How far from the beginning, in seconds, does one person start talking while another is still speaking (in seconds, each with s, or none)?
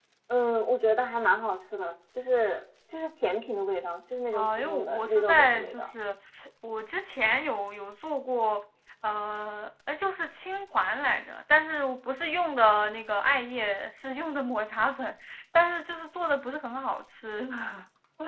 4.3 s